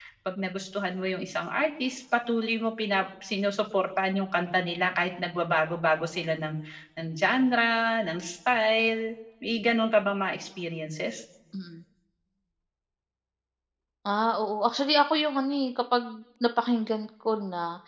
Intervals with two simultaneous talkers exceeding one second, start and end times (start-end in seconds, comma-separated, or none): none